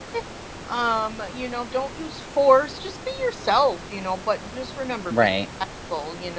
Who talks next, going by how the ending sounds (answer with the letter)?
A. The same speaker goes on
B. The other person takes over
A